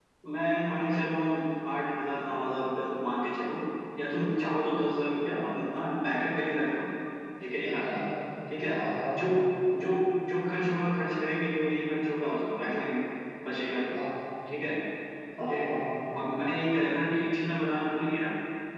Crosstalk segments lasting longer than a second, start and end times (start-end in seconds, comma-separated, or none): none